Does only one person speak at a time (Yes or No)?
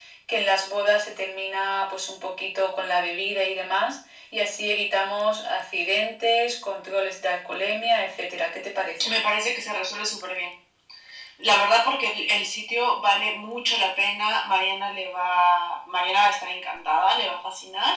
Yes